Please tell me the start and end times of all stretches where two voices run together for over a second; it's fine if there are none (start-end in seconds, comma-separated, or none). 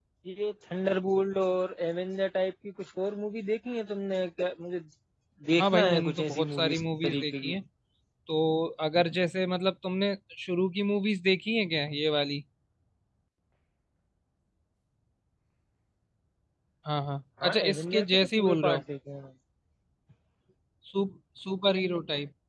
5.6-7.6, 17.4-18.8